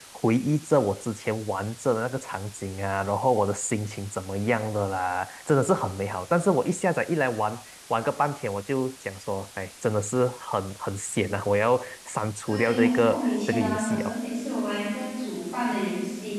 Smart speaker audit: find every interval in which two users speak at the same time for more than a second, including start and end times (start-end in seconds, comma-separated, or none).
12.4-14.1